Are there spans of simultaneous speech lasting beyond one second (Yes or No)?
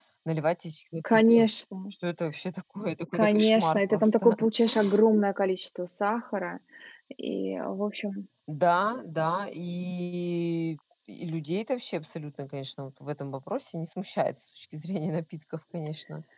Yes